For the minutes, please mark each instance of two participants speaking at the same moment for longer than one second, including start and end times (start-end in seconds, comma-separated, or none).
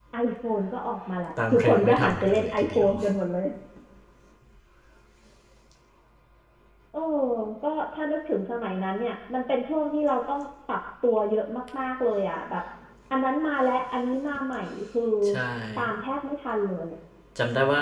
1.5-2.9